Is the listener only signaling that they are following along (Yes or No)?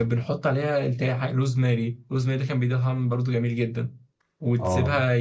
Yes